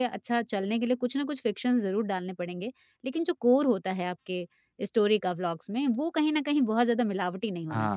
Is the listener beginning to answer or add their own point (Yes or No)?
Yes